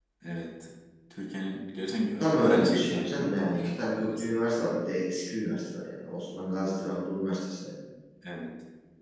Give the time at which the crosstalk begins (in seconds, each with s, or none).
2.2 s